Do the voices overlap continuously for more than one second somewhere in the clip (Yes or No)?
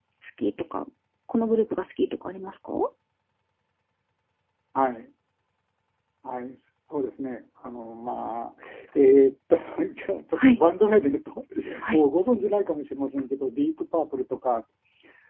No